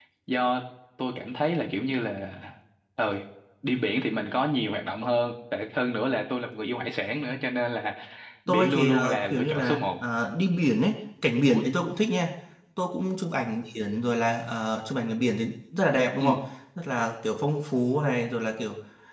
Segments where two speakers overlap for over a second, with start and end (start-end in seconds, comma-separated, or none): 8.5-9.8